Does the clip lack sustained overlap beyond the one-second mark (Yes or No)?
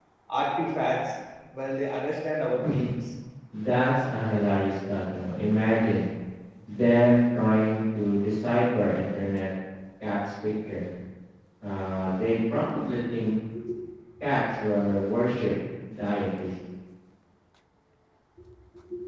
Yes